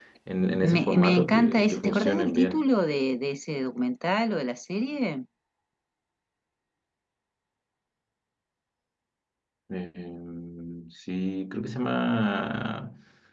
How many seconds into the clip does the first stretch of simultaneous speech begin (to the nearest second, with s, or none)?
1 s